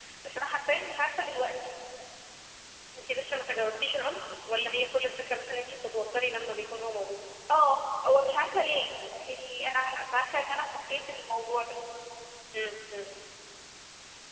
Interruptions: none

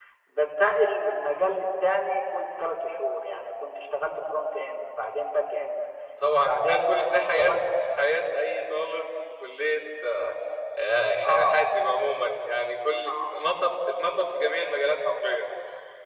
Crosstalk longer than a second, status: present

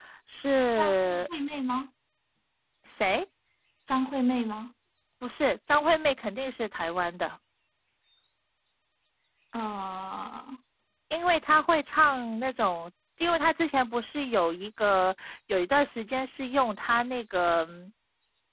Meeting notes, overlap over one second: none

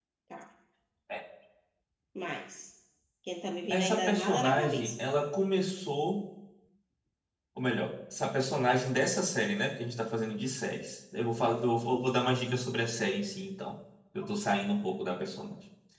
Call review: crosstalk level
present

